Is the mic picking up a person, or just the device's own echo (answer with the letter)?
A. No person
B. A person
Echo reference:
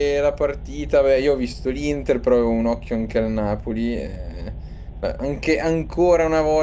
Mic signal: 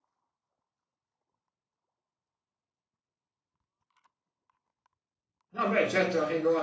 B